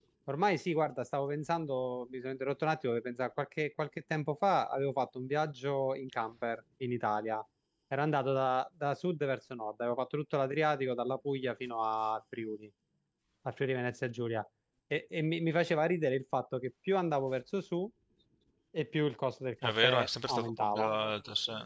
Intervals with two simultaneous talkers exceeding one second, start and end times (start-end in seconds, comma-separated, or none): 19.6-20.9